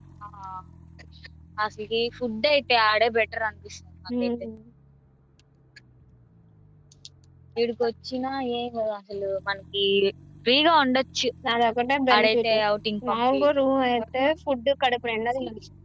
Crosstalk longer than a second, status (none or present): none